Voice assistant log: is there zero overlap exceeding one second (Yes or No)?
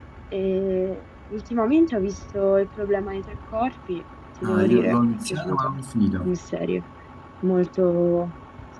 No